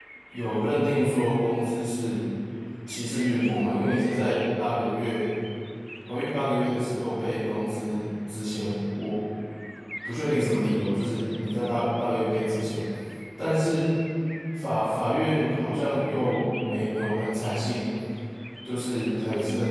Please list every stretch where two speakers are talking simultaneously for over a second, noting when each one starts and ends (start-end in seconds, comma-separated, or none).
none